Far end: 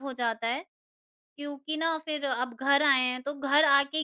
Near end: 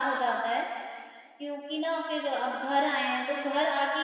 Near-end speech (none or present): none